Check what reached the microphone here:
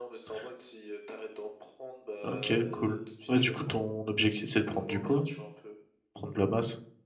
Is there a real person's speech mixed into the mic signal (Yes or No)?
Yes